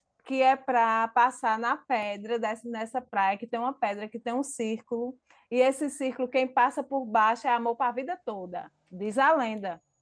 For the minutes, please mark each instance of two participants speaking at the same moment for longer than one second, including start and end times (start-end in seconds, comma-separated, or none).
none